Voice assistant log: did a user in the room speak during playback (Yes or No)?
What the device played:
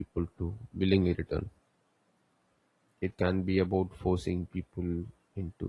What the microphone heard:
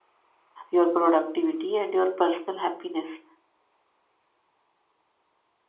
Yes